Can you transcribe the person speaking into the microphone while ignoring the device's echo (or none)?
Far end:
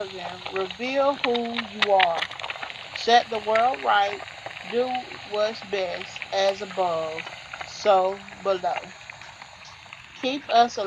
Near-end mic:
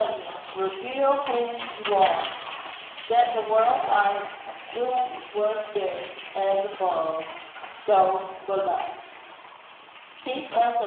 none